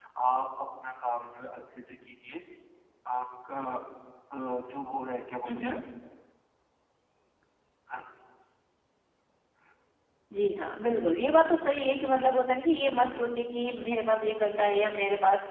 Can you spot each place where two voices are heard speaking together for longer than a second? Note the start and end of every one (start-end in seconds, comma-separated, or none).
none